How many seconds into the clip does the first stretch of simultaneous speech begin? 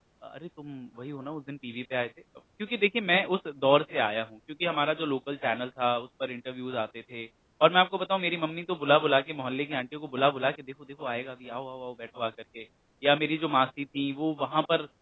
none

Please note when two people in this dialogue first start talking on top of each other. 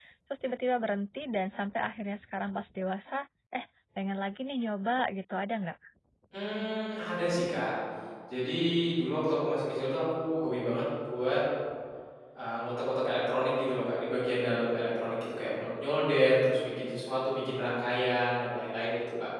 none

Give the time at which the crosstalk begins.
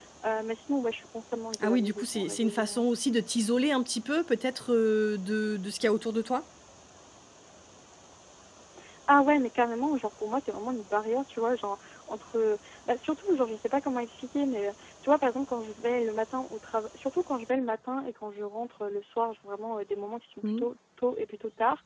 1.5 s

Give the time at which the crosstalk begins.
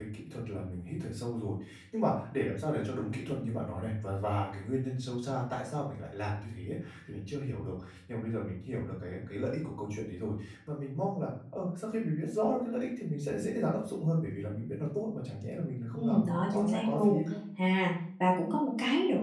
15.9 s

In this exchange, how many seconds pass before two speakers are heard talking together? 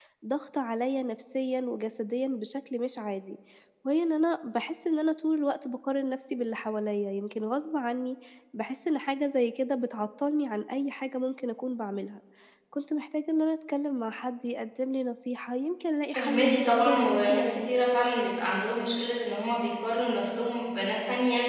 16.1 s

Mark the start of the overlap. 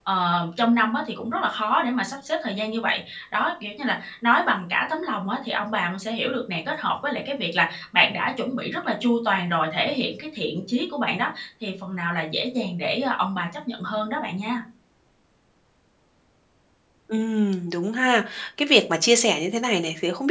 none

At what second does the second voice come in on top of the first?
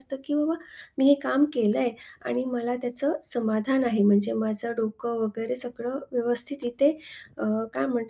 none

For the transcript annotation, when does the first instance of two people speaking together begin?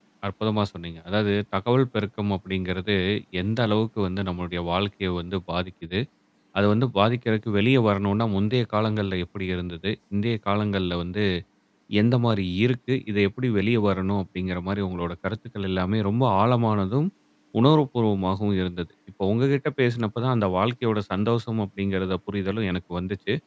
none

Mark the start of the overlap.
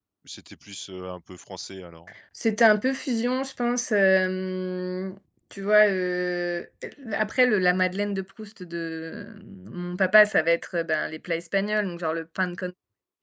none

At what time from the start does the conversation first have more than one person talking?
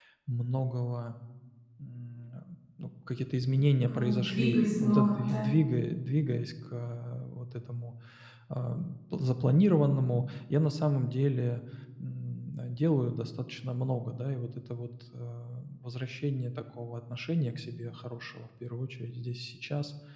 3.9 s

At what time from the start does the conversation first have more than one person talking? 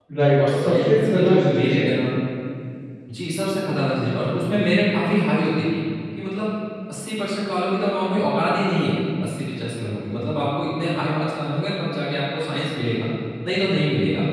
0.5 s

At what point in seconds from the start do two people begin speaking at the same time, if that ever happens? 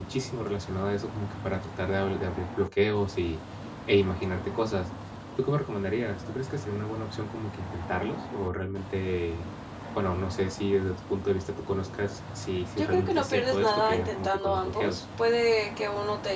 12.8 s

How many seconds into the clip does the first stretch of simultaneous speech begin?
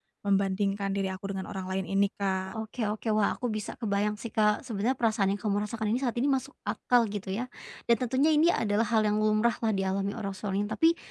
none

